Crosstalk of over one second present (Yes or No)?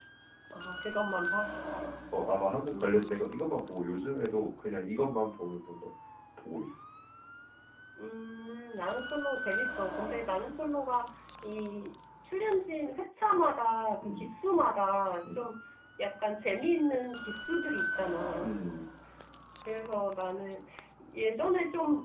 No